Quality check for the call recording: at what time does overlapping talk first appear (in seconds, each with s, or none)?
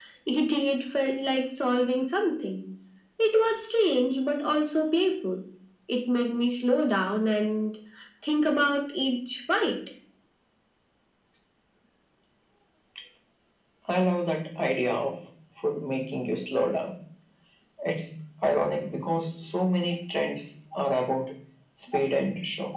none